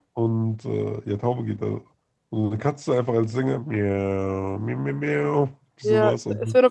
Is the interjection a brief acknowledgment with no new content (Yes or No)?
No